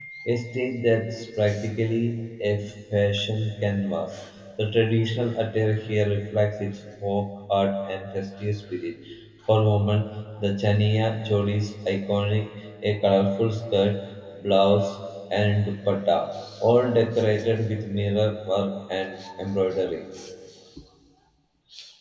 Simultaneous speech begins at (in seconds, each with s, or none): none